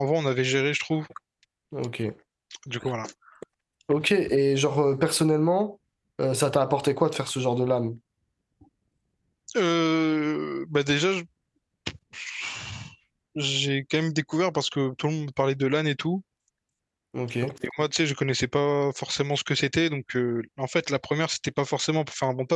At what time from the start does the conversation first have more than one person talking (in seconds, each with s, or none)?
none